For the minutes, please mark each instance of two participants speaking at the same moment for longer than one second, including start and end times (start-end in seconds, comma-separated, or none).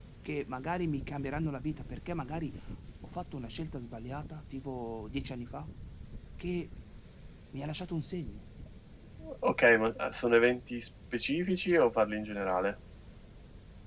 none